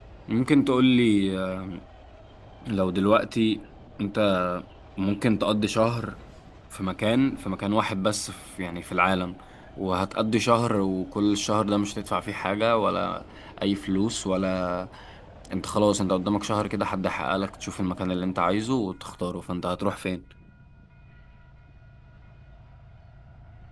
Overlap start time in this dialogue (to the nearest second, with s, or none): none